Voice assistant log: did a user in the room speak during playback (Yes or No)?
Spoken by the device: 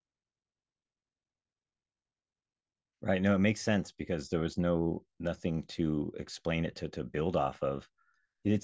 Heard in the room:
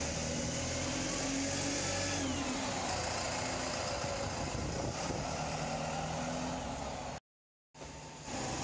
No